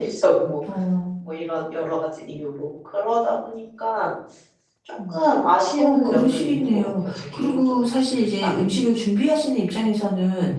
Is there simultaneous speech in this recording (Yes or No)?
Yes